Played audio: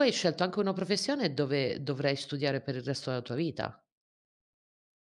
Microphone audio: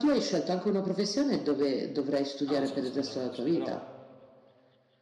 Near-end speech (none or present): present